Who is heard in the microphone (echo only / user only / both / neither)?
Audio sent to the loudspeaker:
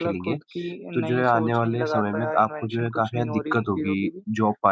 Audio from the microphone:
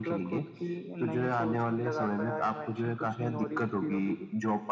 echo only